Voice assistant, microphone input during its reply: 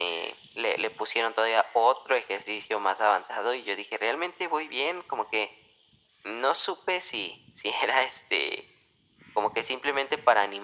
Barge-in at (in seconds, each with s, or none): none